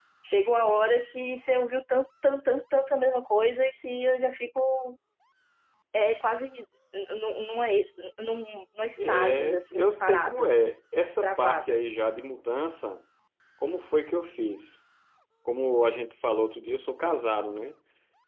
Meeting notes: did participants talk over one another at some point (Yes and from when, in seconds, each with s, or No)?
Yes, from 9.0 s